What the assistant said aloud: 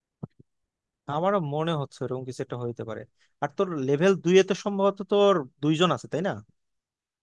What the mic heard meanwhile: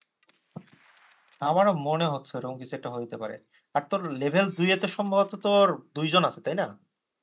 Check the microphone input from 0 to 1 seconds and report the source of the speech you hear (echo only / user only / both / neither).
neither